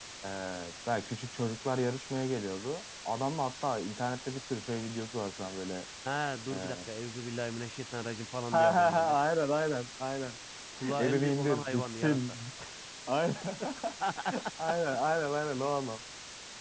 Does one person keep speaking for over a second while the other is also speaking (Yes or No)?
Yes